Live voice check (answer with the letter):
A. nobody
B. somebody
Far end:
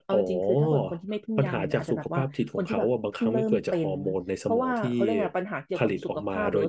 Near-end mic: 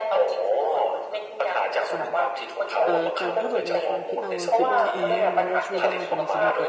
B